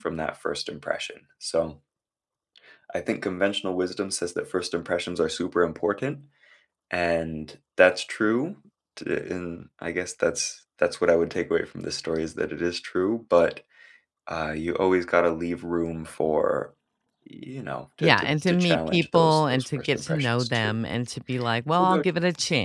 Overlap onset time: 18 s

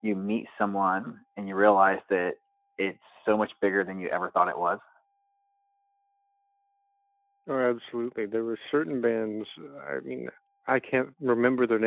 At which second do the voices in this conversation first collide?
none

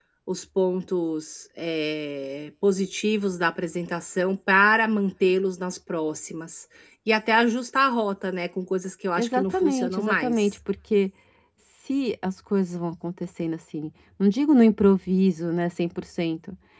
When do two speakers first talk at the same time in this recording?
9 s

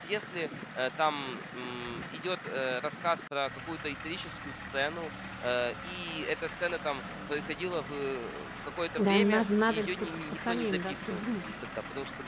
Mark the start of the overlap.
9 s

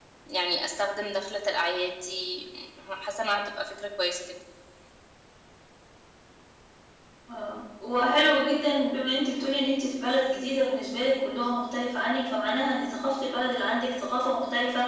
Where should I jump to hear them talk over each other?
none

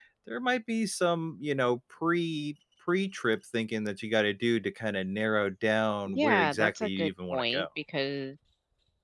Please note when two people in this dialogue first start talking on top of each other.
6 s

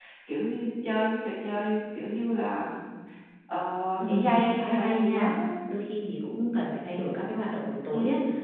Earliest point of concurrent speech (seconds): 4 s

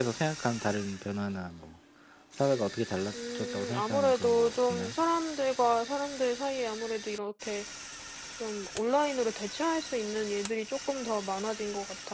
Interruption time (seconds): 3 s

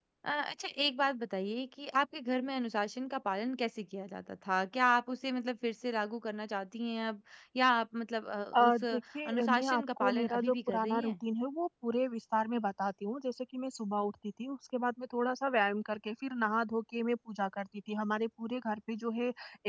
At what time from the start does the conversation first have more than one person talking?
9 s

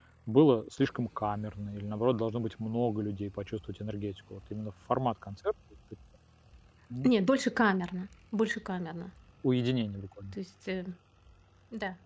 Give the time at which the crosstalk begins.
none

